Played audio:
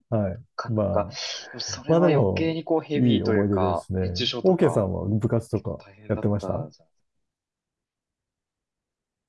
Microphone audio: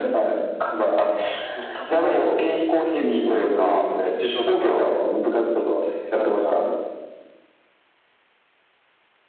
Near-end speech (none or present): none